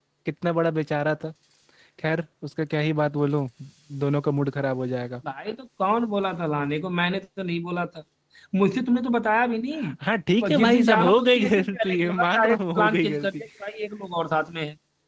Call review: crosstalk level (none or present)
present